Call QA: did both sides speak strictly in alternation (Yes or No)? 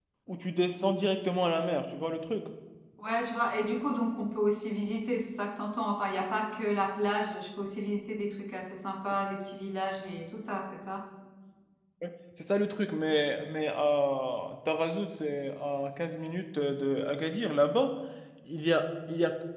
Yes